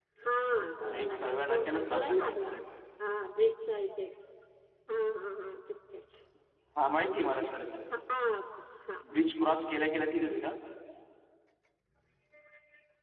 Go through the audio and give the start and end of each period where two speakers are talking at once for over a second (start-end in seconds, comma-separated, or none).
0.9-2.5